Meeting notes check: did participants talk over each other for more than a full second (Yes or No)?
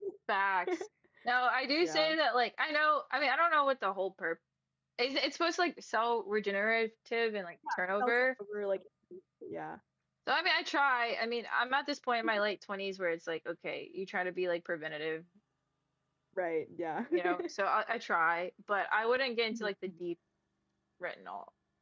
No